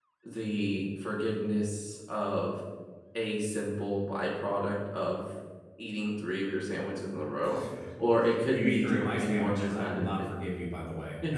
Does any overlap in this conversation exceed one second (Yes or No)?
Yes